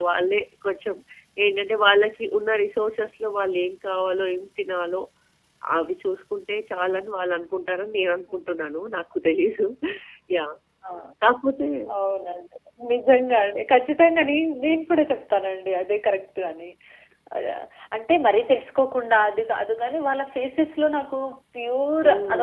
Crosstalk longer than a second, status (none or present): none